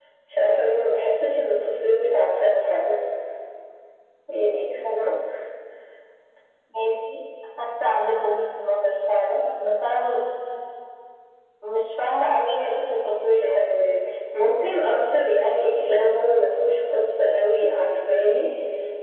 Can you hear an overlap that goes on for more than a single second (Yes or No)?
No